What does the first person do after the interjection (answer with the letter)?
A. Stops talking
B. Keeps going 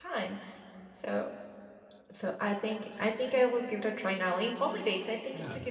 B